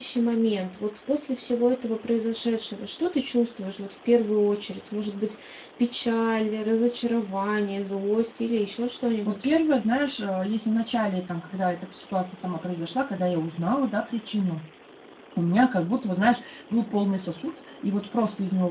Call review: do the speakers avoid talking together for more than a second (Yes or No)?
Yes